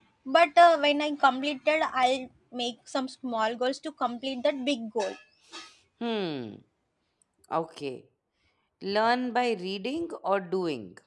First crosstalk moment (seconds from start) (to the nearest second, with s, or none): none